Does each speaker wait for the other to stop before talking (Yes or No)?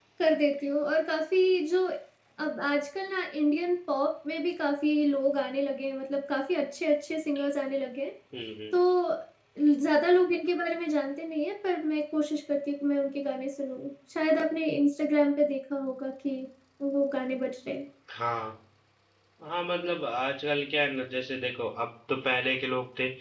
Yes